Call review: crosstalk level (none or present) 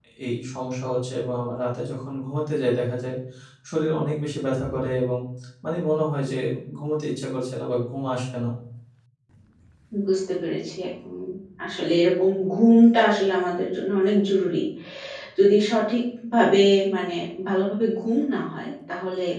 none